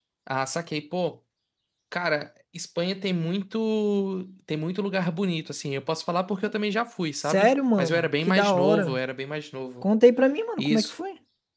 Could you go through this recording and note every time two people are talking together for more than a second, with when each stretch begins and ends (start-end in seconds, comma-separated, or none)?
7.2-9.0